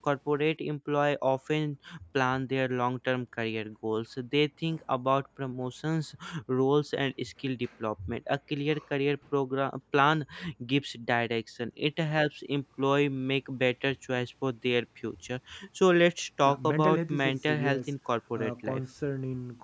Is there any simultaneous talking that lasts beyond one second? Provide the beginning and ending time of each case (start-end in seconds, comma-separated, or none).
16.4-17.9